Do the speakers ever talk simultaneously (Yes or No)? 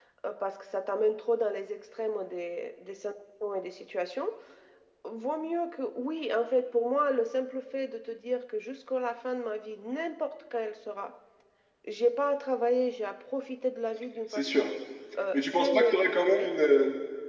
Yes